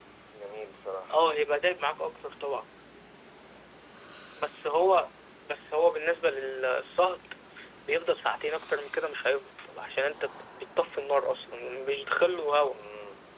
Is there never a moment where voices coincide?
Yes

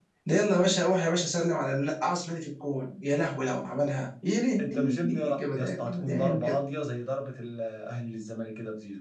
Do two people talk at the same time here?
Yes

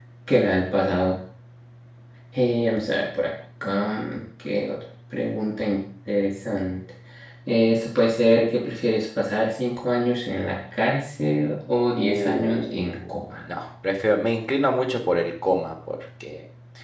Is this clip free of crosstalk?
No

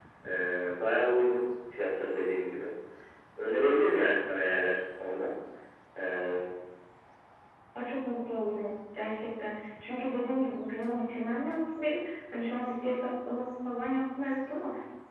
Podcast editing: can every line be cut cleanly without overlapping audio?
Yes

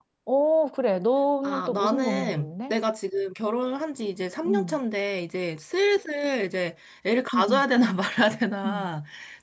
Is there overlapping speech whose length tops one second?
Yes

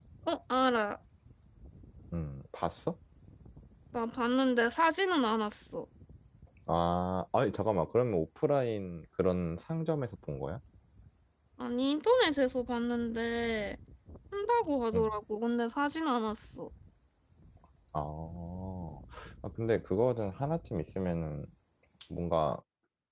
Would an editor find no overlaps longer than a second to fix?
Yes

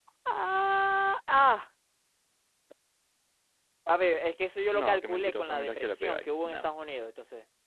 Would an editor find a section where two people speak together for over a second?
Yes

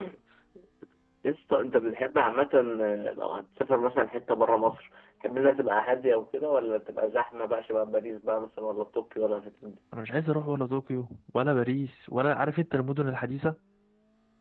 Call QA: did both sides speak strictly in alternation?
Yes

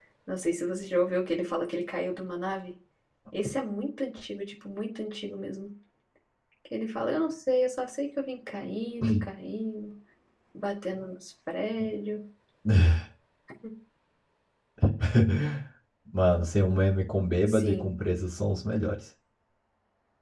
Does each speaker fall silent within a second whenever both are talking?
Yes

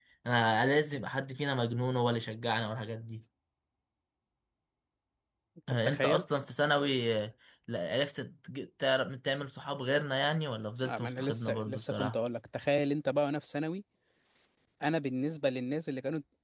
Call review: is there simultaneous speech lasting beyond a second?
Yes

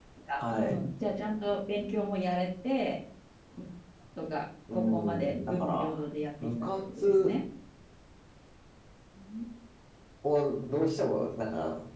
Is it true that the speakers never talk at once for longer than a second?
No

